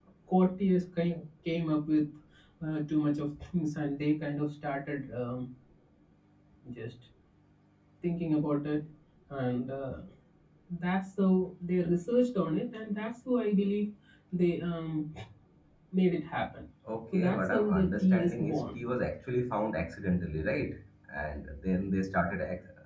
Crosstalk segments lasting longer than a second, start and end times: 17.1-18.8

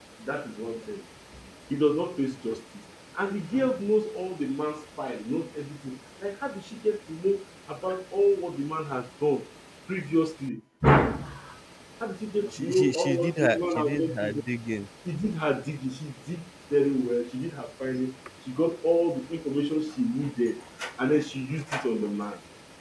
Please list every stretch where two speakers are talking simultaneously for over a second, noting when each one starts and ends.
12.6-14.4

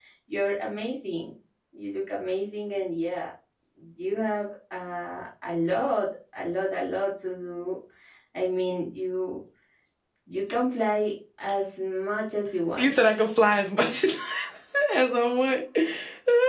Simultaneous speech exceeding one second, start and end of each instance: none

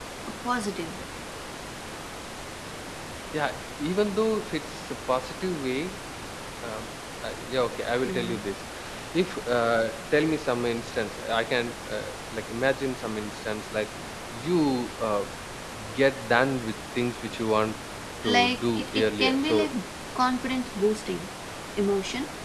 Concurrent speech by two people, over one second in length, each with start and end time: 18.3-19.7

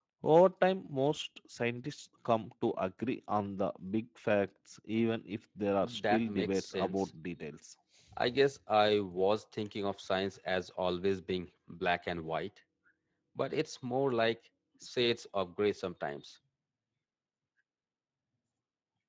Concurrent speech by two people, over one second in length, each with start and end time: 5.8-7.1

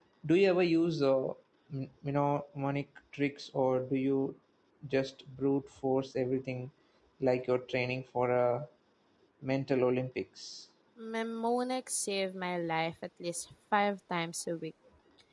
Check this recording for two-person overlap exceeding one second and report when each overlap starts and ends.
none

